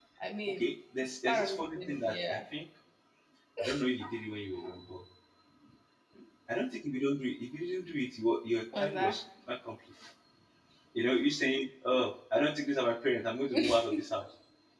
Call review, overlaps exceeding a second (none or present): present